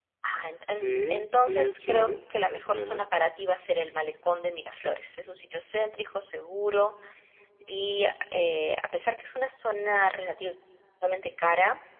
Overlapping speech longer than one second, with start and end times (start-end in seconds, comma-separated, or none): 0.6-3.0